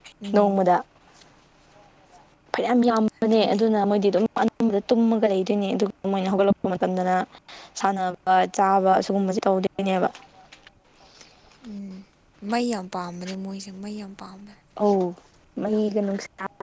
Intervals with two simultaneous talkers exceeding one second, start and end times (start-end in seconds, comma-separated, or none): none